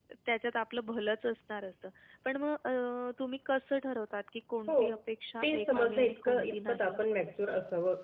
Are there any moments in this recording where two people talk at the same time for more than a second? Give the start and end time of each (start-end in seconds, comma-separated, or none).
5.4-7.0